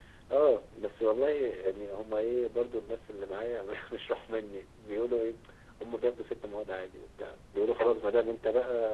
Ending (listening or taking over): listening